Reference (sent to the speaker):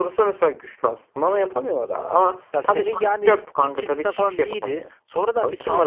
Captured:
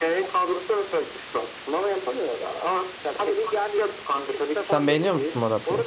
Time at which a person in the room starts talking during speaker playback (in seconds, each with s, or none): 4.7 s